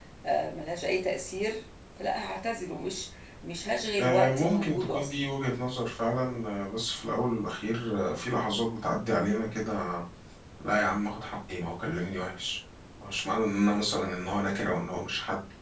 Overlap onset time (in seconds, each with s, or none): 4.0 s